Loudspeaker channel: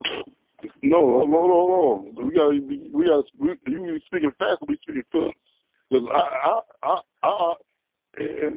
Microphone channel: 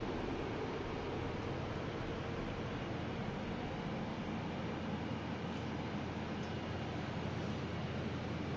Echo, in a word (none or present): none